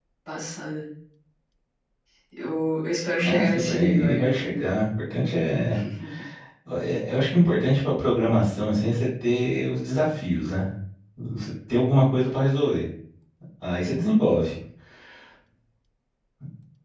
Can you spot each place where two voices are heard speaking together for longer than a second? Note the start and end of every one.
3.2-4.7

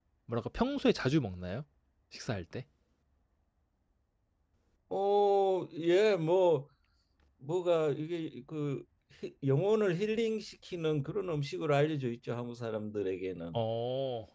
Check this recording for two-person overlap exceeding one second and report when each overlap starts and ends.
none

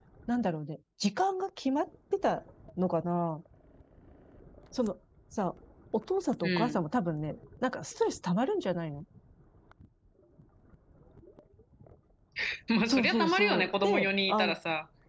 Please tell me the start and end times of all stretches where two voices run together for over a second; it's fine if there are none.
12.9-14.5

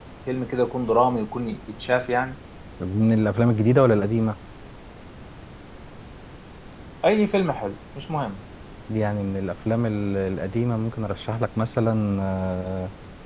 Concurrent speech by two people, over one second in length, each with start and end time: none

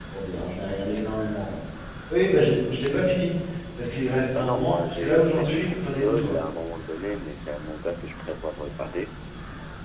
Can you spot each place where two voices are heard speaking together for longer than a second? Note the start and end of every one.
4.4-6.4

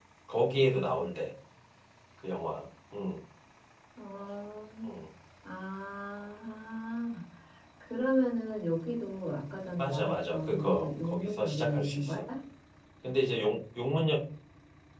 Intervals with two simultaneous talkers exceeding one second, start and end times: 9.8-12.1

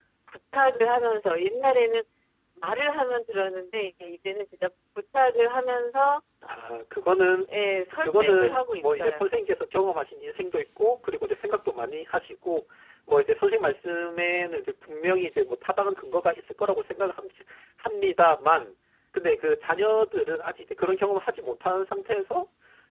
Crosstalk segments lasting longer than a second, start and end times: 8.0-9.3

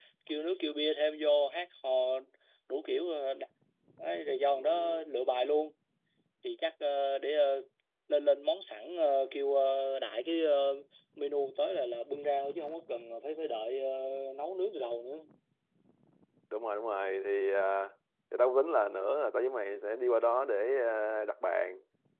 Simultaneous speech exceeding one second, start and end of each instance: none

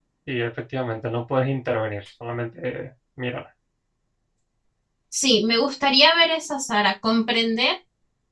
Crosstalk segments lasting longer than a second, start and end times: none

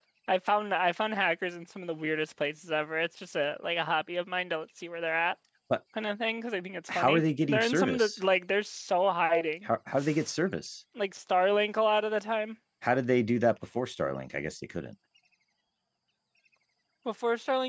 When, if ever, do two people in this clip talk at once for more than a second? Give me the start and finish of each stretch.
7.0-8.2

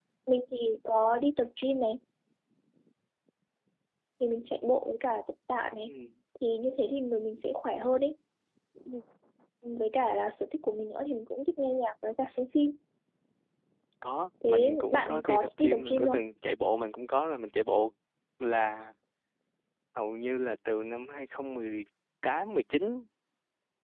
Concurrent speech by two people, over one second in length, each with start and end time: 14.5-16.2

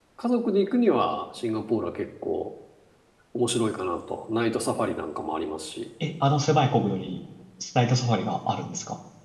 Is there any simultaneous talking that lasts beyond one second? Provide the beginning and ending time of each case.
none

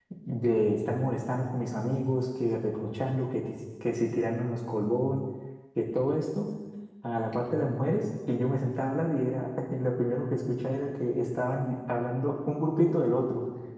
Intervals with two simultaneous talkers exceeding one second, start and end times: none

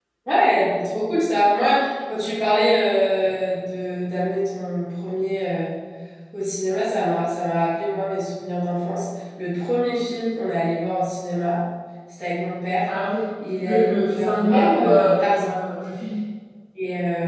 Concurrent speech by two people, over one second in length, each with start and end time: 13.6-15.6

